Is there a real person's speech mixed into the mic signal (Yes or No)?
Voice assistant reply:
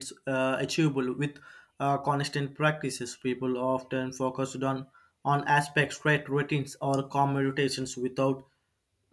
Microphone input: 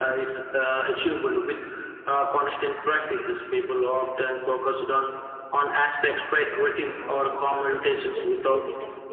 Yes